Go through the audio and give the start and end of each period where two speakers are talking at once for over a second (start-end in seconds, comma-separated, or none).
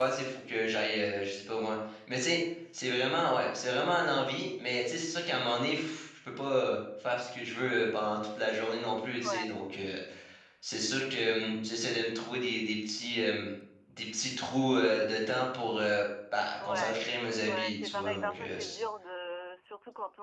17.5-18.8